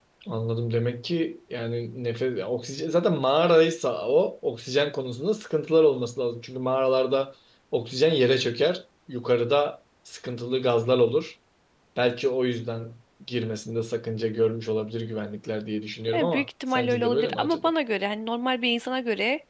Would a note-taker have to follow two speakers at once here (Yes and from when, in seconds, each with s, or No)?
Yes, from 16.1 s